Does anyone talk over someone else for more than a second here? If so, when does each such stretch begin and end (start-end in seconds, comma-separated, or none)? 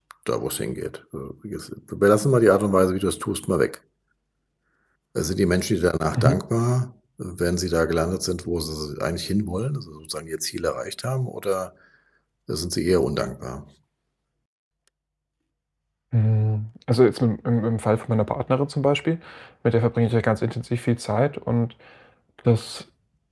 none